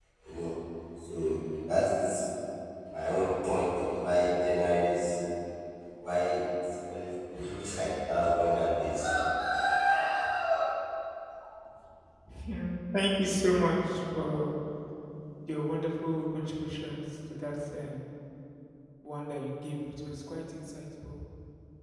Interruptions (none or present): none